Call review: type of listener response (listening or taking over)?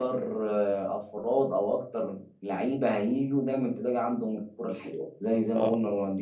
listening